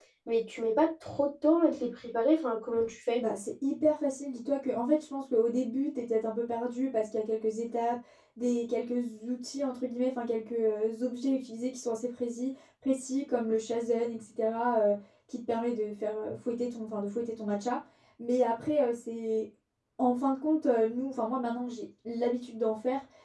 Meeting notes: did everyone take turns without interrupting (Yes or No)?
Yes